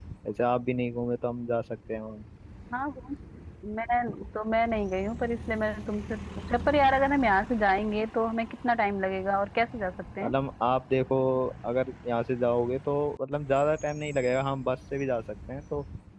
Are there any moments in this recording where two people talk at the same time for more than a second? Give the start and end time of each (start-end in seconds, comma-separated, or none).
none